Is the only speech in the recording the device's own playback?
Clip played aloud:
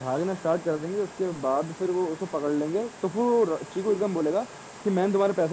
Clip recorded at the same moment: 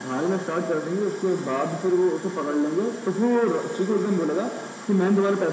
Yes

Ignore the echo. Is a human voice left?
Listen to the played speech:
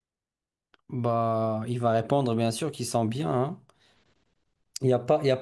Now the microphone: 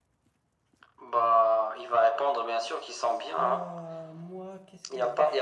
Yes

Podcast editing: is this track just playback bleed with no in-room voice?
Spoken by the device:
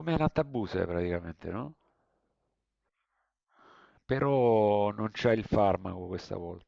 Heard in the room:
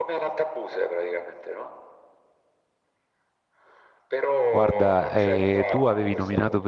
No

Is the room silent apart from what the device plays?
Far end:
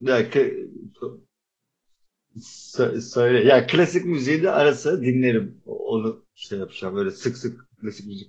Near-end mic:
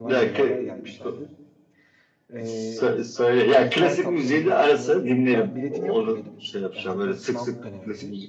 No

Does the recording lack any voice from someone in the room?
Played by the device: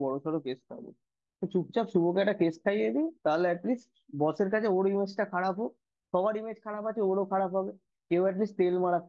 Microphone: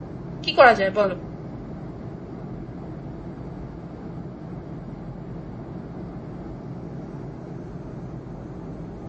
No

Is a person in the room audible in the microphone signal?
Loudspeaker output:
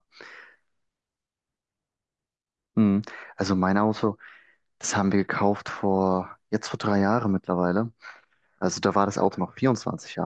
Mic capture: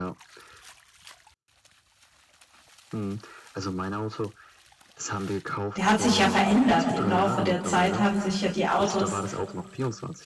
Yes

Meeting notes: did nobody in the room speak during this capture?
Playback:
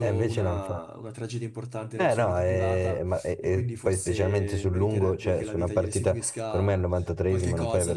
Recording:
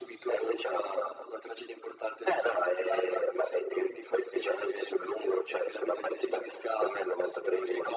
Yes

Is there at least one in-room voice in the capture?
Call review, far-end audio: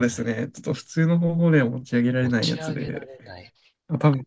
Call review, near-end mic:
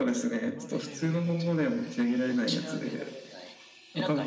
Yes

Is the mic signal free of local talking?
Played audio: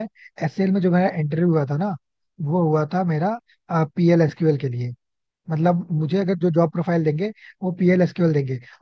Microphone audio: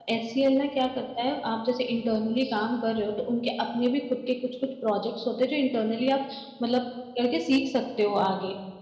No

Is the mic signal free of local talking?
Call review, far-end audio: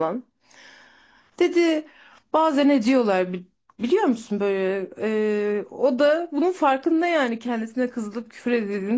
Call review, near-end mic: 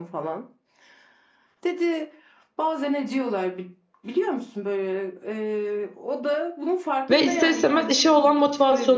No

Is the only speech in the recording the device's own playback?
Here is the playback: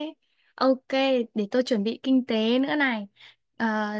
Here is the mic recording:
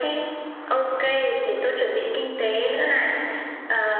Yes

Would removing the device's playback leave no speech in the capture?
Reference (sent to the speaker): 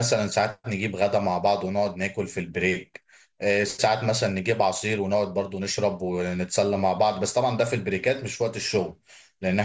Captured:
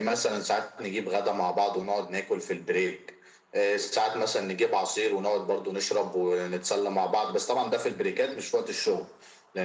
Yes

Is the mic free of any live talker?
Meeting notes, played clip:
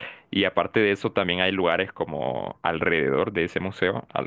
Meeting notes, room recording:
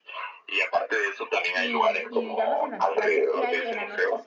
No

